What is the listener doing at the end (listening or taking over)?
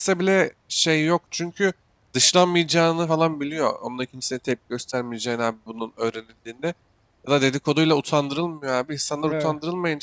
listening